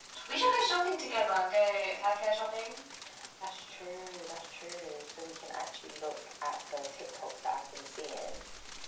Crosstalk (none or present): none